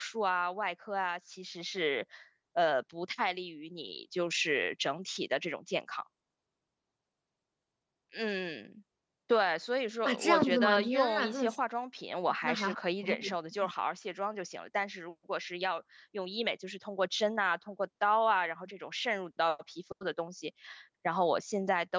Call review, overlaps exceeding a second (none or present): present